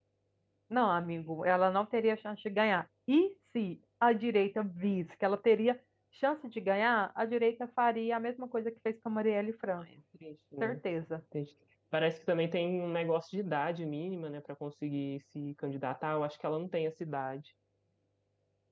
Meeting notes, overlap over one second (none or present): none